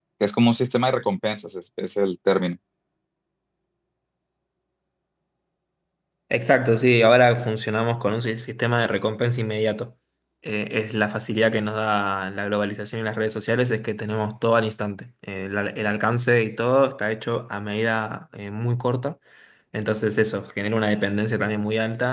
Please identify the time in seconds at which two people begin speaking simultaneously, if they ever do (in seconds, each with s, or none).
none